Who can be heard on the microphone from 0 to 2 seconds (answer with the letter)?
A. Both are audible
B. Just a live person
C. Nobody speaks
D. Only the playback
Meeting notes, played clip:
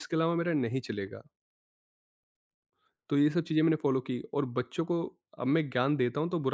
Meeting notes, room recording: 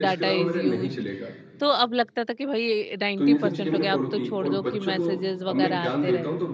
A